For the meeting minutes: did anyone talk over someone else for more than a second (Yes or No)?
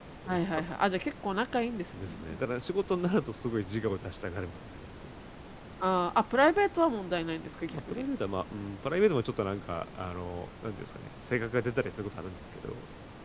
No